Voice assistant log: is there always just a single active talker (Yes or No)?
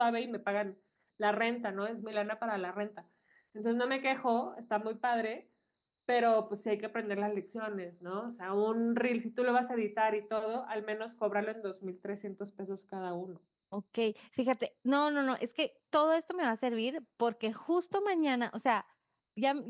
Yes